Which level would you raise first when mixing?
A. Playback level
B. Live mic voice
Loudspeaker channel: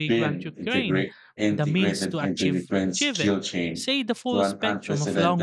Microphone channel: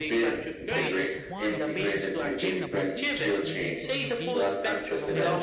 B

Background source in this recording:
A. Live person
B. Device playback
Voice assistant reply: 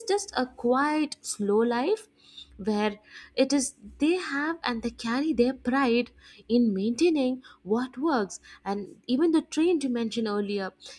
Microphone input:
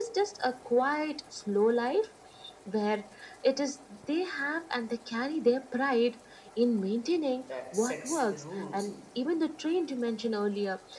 A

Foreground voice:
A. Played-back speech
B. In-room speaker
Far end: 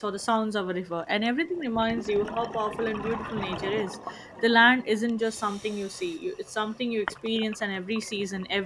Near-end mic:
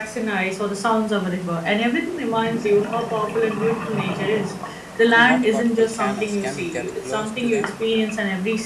A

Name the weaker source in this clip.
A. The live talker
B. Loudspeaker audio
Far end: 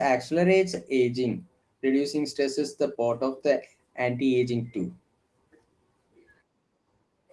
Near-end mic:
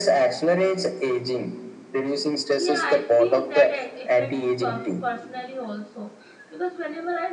A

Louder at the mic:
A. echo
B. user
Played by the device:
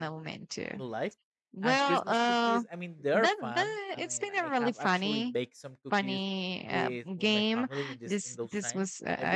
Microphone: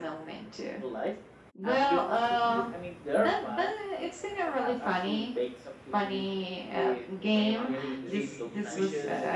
A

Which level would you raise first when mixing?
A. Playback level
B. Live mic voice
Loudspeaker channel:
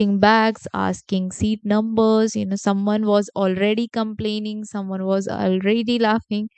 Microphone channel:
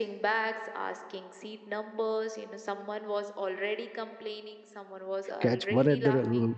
A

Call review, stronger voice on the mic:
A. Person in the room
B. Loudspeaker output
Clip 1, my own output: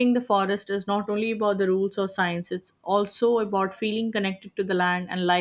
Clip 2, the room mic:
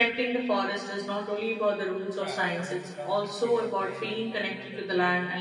B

